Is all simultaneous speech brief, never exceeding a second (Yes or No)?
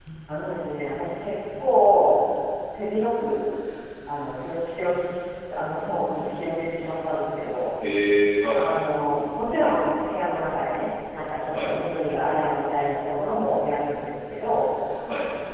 Yes